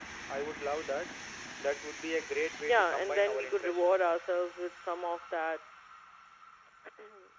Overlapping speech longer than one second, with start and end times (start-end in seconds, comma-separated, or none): 2.7-3.9